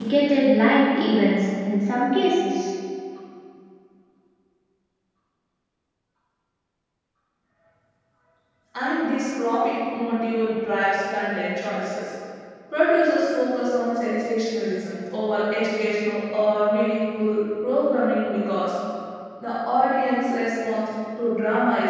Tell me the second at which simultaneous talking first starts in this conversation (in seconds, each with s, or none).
none